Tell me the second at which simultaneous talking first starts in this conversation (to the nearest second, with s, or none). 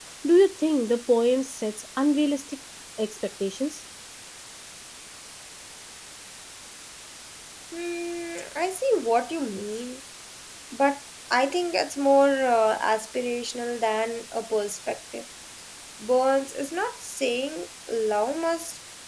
none